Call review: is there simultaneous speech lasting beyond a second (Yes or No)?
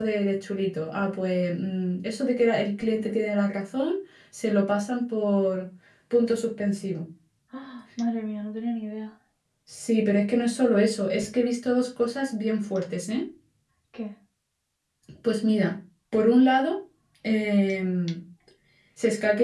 No